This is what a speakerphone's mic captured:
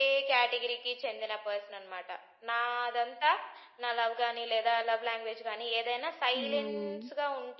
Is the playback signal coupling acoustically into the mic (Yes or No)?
Yes